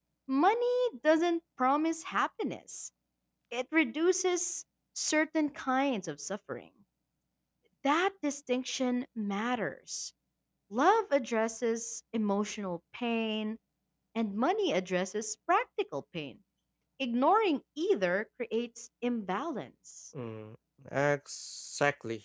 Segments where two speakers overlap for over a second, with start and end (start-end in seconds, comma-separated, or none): none